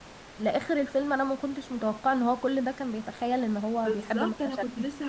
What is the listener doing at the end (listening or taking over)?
taking over